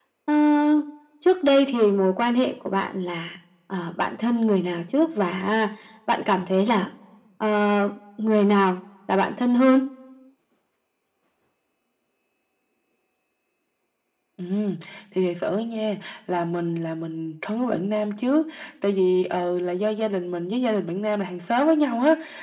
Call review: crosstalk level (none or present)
none